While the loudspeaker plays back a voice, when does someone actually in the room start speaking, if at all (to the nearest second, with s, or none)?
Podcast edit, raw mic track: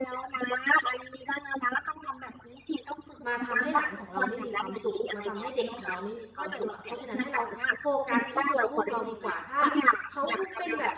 3 s